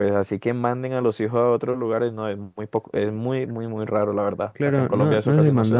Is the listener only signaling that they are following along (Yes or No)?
No